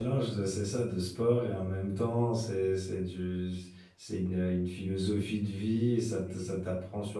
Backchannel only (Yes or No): Yes